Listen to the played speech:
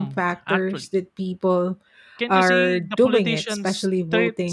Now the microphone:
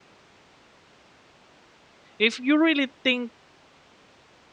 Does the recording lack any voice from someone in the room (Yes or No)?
No